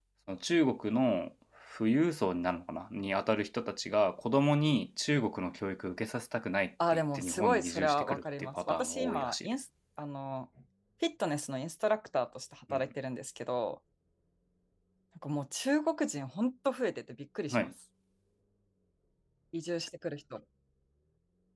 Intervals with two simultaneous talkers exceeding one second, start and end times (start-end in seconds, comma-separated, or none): 6.9-9.5